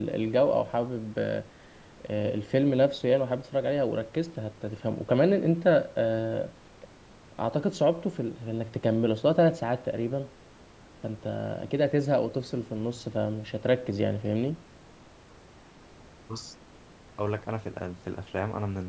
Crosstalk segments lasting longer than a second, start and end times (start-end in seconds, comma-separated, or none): none